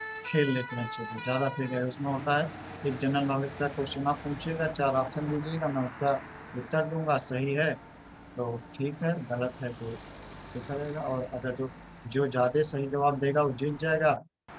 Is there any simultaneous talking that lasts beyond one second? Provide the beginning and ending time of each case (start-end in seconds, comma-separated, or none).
none